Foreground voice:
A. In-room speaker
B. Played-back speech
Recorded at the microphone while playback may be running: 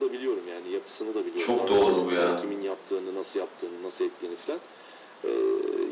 A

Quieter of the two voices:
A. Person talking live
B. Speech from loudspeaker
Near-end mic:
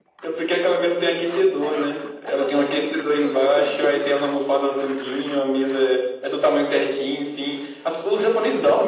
A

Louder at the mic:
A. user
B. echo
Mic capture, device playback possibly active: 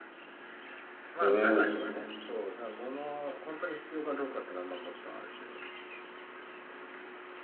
A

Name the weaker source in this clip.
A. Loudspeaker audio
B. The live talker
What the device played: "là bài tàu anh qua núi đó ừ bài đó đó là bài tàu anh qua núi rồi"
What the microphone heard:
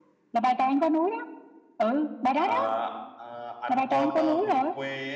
B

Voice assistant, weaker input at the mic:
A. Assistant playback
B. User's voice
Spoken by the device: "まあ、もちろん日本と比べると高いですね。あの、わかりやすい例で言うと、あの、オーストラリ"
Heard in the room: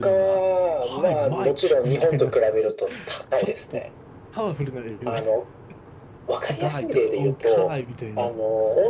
B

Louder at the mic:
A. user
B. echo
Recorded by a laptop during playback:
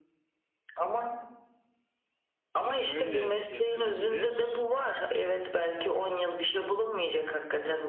B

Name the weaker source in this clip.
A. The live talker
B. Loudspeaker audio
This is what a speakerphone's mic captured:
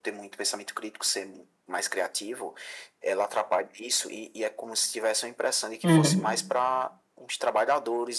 B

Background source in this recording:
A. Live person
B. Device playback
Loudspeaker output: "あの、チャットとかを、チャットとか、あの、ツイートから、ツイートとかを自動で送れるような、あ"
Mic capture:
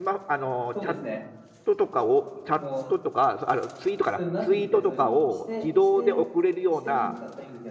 A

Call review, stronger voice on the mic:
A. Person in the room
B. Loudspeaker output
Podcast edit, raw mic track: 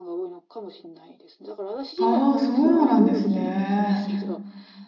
A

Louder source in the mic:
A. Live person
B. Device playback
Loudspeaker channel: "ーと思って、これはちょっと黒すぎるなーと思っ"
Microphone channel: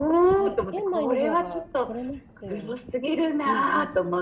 B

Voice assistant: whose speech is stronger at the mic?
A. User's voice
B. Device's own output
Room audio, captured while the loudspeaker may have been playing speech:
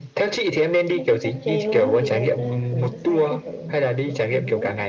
B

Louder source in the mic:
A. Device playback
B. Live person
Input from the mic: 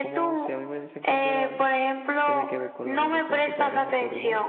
A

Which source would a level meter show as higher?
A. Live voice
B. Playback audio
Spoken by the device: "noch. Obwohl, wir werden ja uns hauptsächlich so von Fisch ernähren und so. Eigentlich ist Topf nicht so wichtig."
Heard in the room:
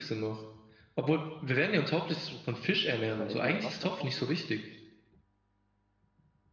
B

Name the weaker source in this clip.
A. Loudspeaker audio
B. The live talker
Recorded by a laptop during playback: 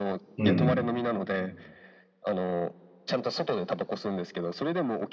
A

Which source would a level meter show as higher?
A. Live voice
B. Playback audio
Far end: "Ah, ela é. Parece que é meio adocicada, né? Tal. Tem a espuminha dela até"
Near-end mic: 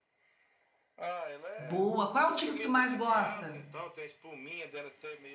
A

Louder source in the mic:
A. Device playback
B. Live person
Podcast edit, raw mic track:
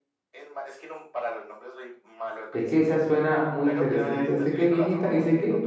B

